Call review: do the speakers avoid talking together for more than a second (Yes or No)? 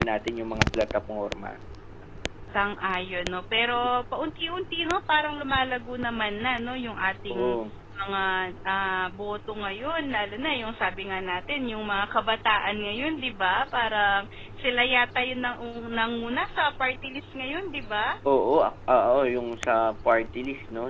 Yes